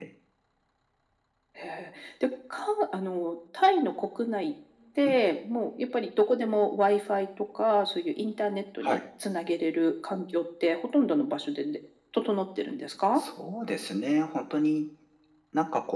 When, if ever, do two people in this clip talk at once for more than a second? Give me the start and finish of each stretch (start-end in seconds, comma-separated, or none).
none